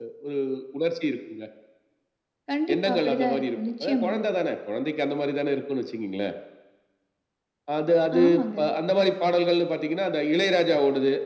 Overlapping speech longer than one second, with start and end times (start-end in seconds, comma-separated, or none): 2.7-4.2